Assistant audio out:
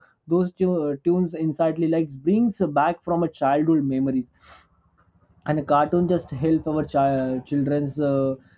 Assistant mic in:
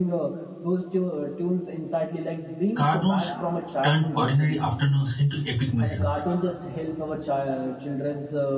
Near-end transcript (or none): Cartoons turned ordinary afternoons into epic missions.